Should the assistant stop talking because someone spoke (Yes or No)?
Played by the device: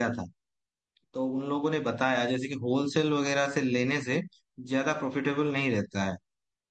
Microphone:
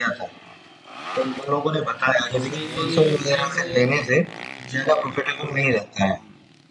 Yes